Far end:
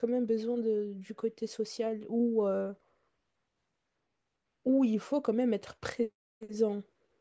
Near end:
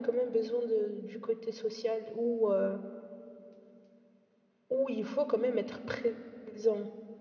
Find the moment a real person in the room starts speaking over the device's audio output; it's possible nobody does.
none

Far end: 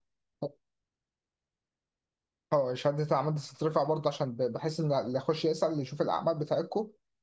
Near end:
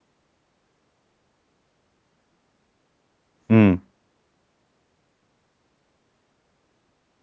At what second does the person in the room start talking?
3.5 s

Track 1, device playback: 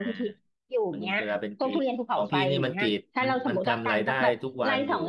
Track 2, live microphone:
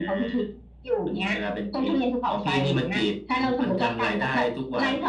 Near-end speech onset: none

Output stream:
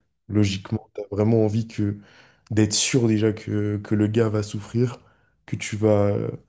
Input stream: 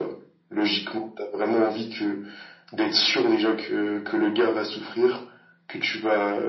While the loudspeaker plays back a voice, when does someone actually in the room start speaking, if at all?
none

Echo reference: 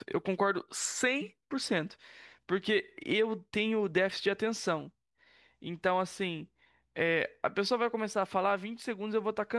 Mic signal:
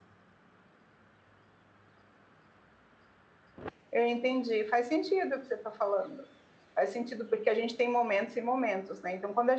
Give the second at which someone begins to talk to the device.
3.9 s

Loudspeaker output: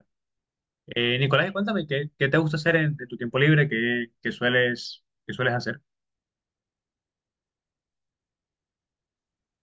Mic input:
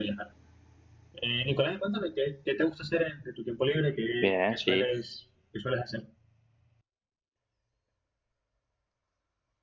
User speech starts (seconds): 4.2 s

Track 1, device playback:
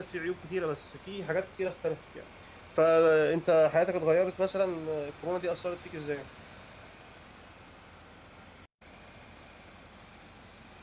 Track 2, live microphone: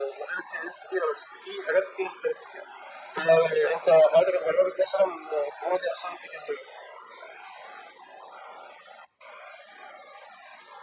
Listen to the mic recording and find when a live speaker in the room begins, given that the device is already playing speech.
none

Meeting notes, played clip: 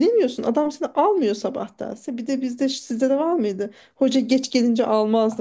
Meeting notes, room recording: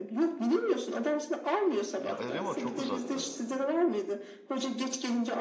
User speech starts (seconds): 2.0 s

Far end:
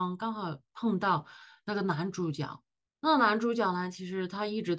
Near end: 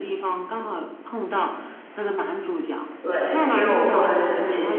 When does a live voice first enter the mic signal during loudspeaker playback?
3.0 s

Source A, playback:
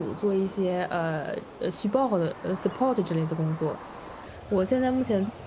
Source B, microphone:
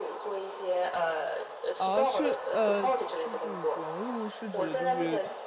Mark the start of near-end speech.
1.8 s

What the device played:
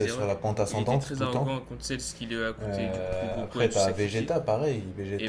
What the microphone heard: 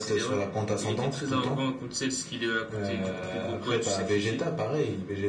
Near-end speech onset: none

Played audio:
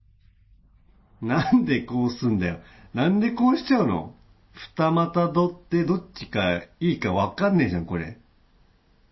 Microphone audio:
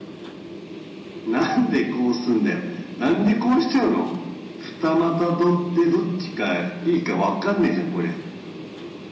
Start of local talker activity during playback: none

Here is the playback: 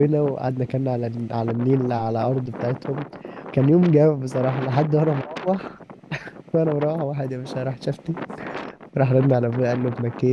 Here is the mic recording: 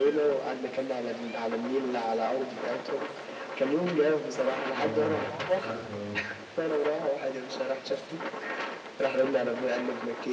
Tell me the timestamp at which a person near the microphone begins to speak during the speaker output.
4.8 s

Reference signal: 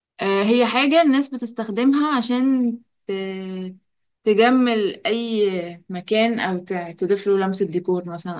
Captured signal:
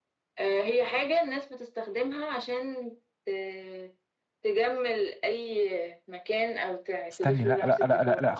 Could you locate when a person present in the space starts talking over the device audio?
7.1 s

